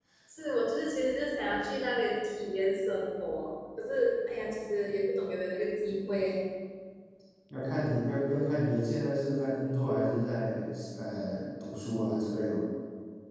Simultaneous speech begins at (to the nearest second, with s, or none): none